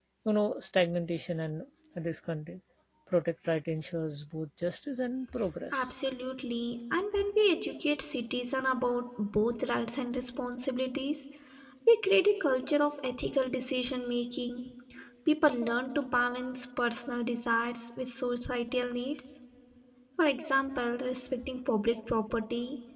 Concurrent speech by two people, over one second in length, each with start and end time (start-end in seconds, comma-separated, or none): none